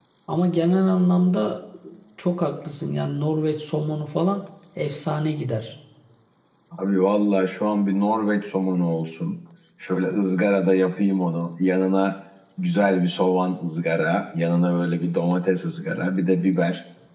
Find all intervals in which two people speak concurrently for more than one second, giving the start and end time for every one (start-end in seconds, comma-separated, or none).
none